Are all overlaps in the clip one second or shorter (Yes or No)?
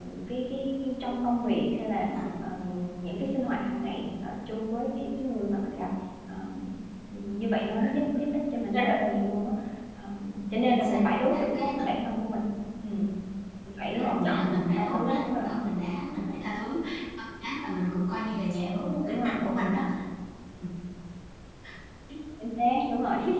No